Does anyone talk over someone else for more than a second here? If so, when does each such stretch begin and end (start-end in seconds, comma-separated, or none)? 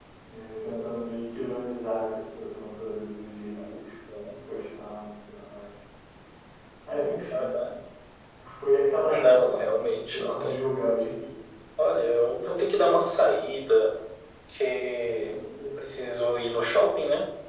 9.0-10.6